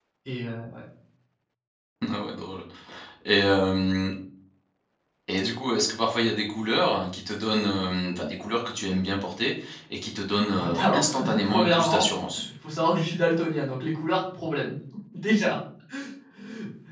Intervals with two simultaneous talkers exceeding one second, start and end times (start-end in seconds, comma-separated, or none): 10.7-12.1